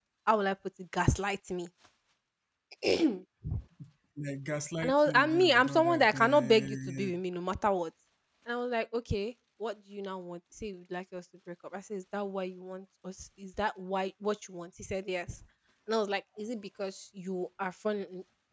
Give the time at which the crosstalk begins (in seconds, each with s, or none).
4.8 s